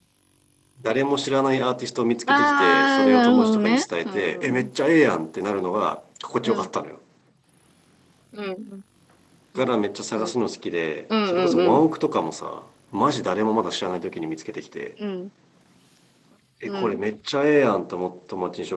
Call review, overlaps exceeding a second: present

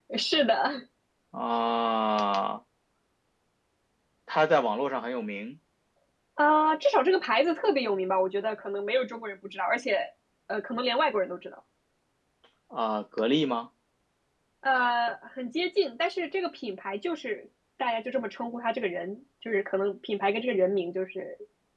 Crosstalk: none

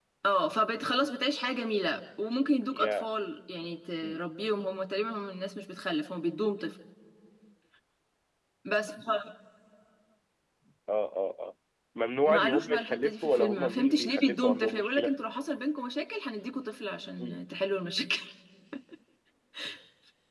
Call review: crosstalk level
present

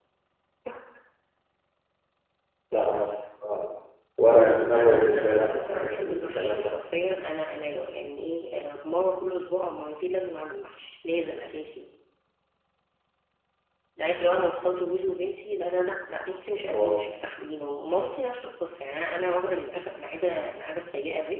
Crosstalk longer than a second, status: present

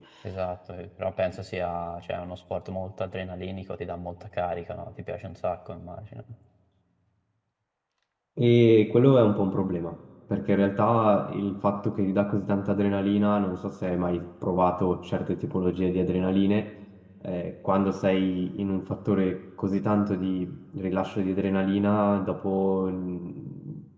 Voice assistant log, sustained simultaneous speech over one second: none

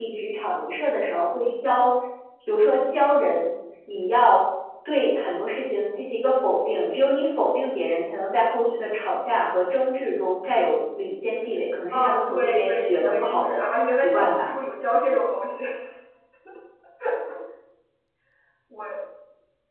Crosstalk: present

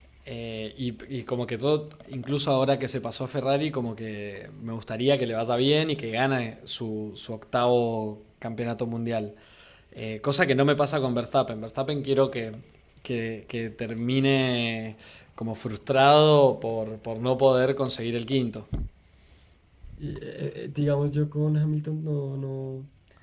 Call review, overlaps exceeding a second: none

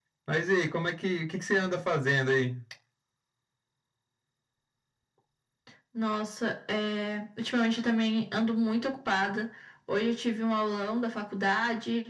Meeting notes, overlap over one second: none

